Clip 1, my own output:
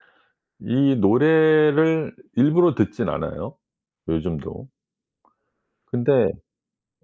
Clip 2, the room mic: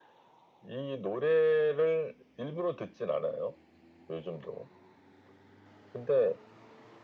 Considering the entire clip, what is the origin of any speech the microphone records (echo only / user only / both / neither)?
echo only